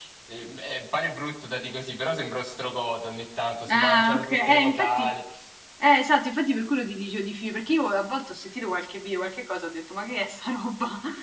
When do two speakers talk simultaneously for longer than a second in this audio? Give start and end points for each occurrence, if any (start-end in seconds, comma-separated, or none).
3.7-5.0